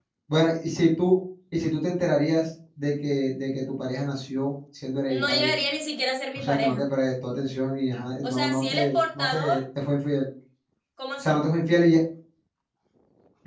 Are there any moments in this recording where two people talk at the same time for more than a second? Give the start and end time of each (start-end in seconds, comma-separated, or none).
8.2-9.6